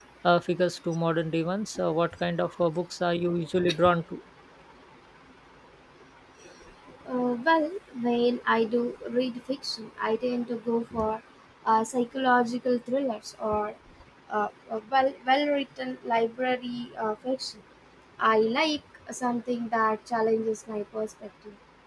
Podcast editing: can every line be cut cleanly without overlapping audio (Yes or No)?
Yes